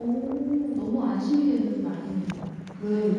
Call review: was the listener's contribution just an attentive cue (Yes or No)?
No